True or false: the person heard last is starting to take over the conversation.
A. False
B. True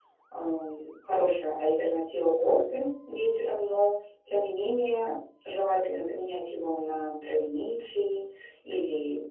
A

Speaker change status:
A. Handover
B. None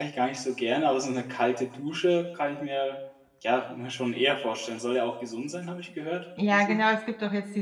A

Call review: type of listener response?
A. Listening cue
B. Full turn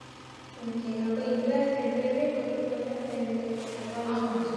B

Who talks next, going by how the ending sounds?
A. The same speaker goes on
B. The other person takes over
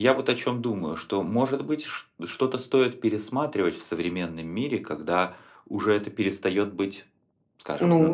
B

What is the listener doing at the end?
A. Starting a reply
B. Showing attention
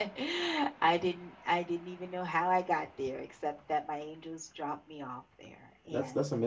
A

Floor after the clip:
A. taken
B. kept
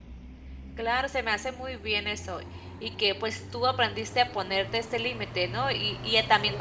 B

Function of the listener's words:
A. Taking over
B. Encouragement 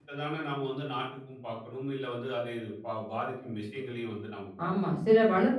A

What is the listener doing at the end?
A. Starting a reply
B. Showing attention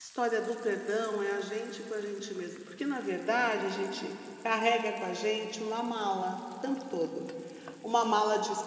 B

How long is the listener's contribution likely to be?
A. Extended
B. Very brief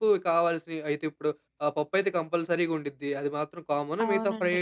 B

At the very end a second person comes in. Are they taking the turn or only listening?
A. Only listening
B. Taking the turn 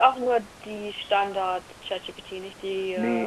B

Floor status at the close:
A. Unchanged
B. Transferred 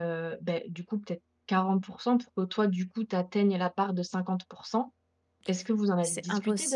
B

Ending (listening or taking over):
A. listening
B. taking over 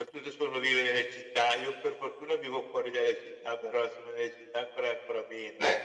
B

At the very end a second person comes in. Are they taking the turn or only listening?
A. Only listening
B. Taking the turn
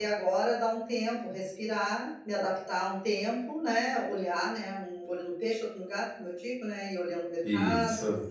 A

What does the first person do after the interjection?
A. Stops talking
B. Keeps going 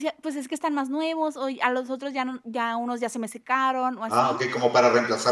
A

